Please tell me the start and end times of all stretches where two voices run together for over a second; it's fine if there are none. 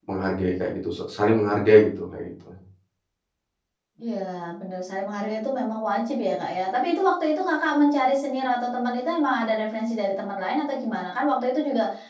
none

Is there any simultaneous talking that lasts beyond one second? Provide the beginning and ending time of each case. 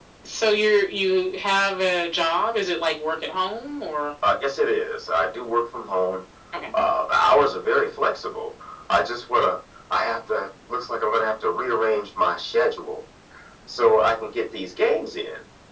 none

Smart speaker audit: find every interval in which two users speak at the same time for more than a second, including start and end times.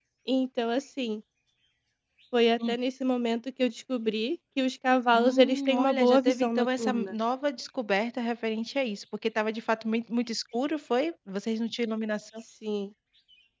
5.1-7.1

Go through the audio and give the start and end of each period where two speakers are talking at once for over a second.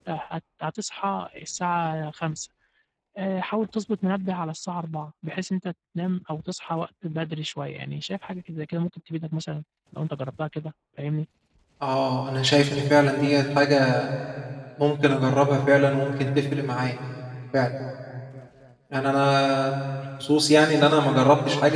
none

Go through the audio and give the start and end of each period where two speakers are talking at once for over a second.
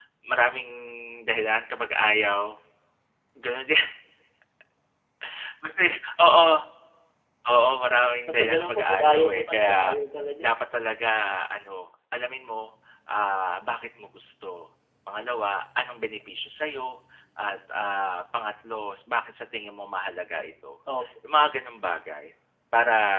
8.3-9.9

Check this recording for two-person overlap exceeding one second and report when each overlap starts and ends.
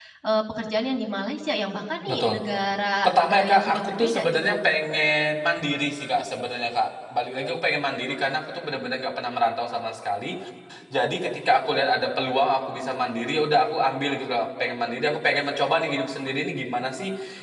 3.0-4.6

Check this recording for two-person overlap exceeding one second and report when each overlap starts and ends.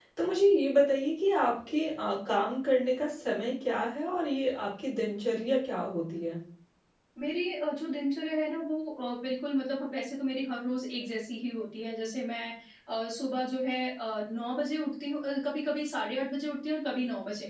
none

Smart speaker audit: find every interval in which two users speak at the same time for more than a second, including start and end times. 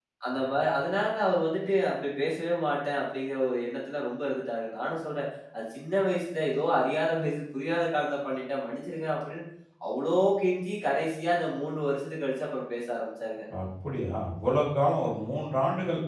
none

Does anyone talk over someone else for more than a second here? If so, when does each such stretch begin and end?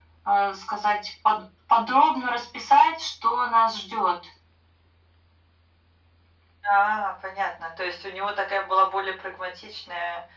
none

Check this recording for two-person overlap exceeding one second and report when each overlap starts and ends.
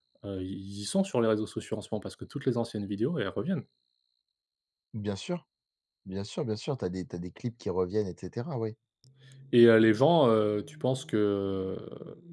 none

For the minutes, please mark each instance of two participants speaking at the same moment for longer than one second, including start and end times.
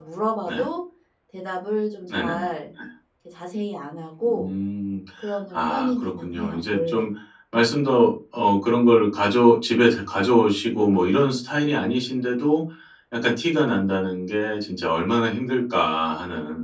5.5-7.0

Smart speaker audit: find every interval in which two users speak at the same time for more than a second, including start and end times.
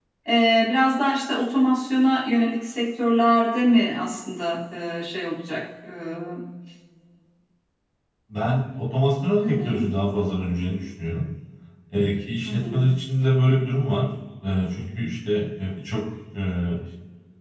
none

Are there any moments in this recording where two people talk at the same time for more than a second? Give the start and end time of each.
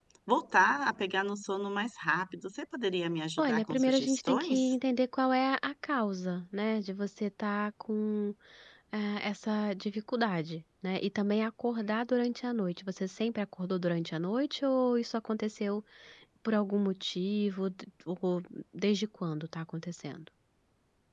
3.4-4.7

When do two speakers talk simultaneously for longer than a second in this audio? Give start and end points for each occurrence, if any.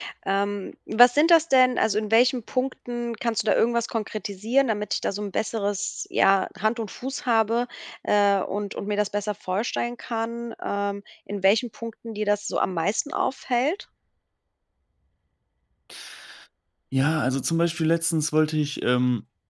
none

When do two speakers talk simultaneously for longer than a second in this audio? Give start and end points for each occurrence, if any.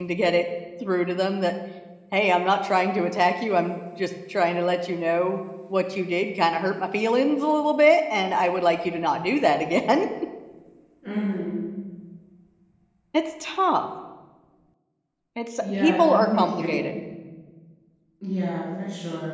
15.6-17.0

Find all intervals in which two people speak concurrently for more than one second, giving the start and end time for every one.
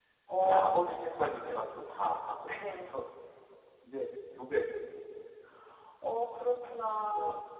none

